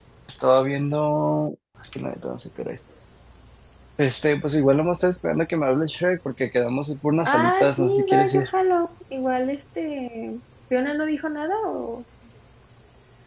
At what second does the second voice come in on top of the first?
7 s

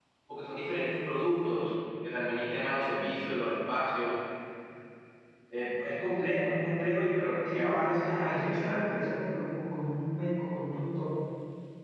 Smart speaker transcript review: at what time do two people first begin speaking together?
7 s

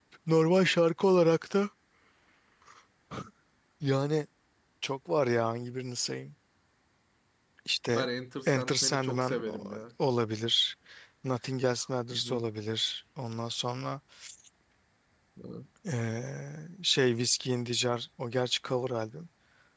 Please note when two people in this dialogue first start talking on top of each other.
8 s

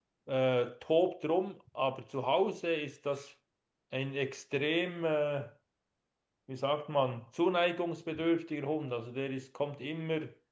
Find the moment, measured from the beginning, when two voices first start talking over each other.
none

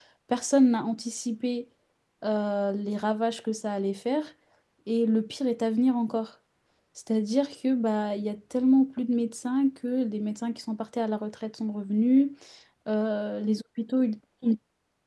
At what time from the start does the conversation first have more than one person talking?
none

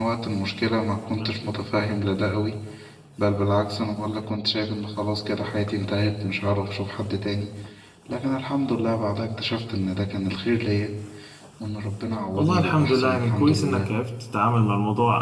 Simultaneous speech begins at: 12 s

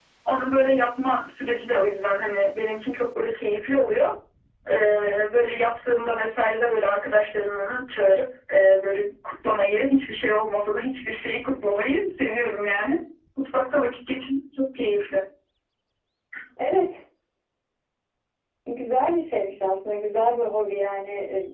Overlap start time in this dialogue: none

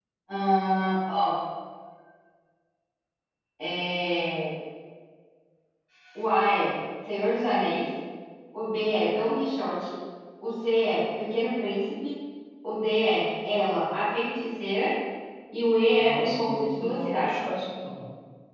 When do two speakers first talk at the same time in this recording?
16 s

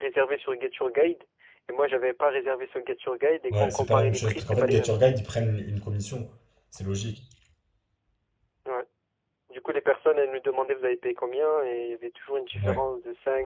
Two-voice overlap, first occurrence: 4 s

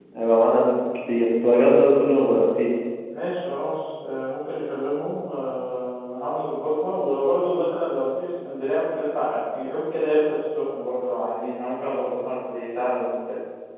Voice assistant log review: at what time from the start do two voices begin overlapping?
none

